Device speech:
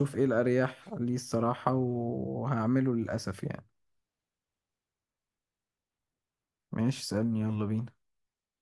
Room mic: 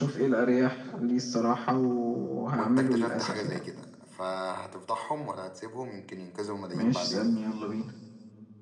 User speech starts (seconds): 2.6 s

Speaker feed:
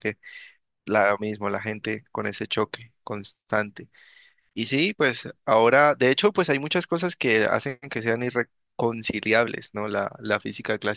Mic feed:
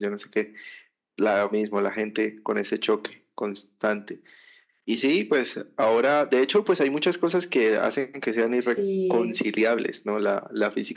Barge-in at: 8.6 s

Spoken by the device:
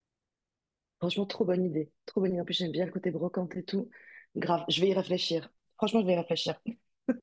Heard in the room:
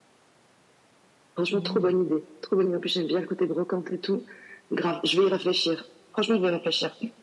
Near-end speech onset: 1.5 s

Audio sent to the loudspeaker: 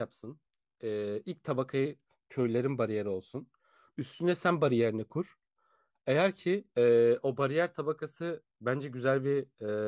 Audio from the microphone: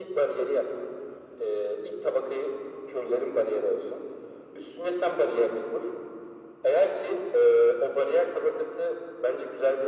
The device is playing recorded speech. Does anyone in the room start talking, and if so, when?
none

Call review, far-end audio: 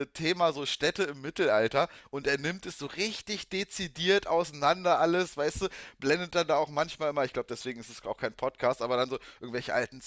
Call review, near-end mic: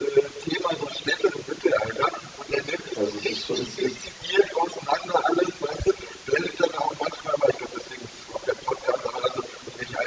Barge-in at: 2.9 s

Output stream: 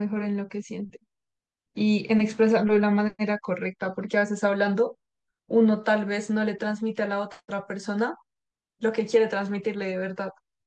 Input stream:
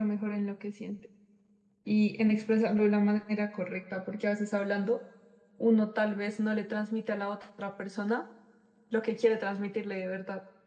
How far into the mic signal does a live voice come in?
none

